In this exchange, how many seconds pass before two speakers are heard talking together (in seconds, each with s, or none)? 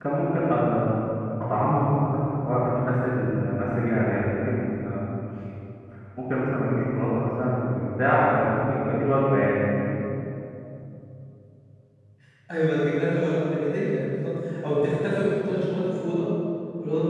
none